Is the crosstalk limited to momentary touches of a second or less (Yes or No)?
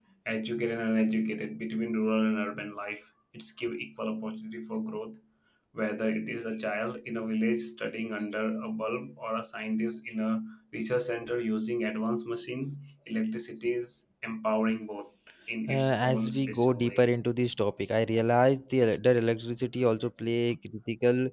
No